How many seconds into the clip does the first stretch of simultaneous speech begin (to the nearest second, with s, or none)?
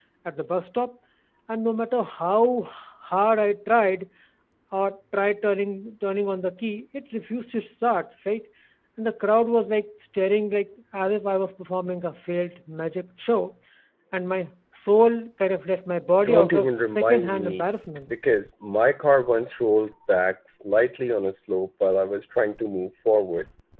16 s